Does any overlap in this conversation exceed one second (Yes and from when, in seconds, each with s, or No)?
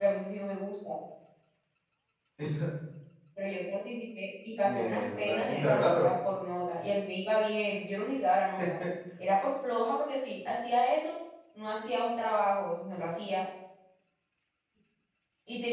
Yes, from 4.6 s